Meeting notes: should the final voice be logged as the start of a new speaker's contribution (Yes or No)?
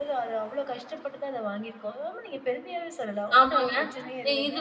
Yes